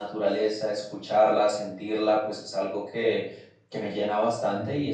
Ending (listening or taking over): listening